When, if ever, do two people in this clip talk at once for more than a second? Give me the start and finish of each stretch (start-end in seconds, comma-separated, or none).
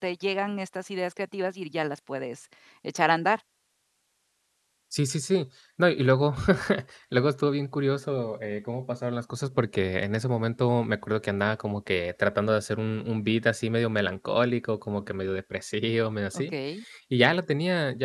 none